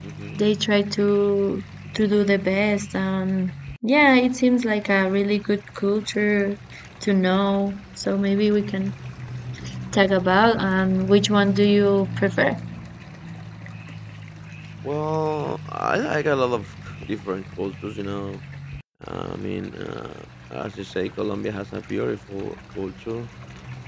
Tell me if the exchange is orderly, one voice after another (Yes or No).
Yes